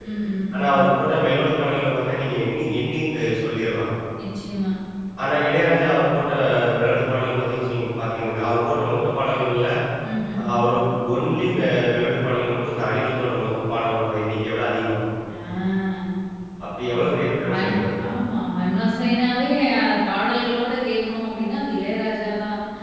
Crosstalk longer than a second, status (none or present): none